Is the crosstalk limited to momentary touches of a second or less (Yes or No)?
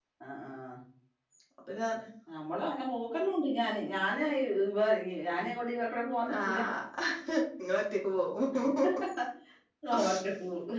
Yes